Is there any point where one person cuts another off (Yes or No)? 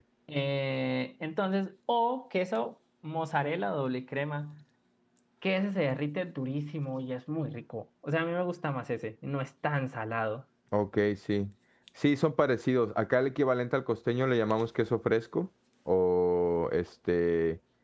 No